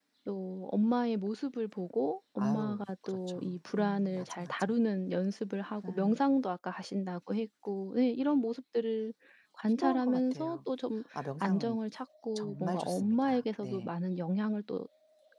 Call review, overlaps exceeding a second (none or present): present